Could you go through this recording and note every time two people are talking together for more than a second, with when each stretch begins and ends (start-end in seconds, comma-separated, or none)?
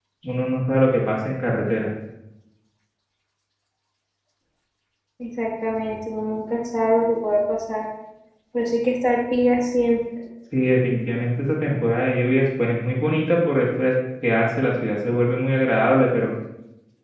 none